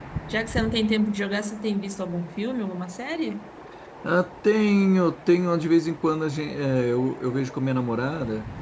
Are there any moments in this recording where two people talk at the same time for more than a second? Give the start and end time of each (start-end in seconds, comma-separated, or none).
none